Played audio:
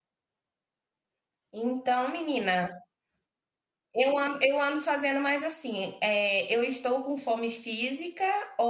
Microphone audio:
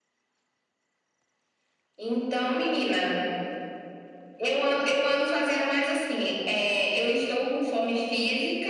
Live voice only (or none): none